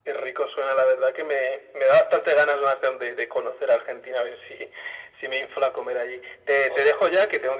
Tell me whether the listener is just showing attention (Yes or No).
Yes